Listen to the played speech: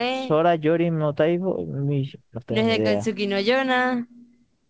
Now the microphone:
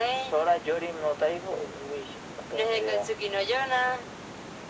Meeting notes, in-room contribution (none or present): none